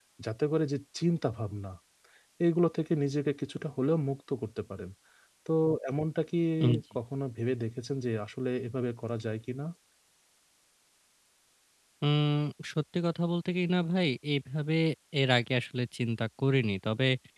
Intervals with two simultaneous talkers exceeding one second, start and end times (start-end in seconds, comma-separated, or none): none